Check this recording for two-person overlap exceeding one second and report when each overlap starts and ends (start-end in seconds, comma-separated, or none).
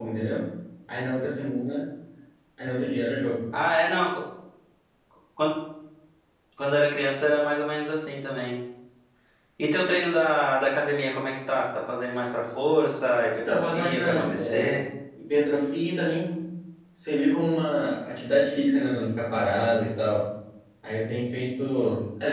13.4-14.8